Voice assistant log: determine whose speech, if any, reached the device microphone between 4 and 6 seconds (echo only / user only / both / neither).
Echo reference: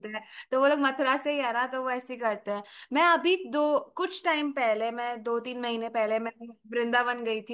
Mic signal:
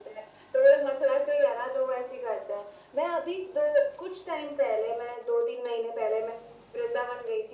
echo only